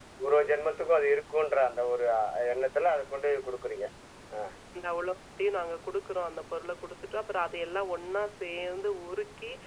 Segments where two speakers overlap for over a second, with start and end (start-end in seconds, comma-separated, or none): none